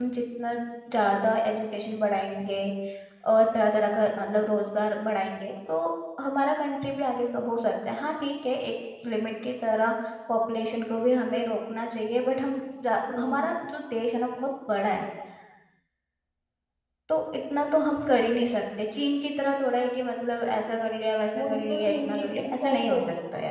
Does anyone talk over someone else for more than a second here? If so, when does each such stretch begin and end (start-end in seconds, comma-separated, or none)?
21.4-22.8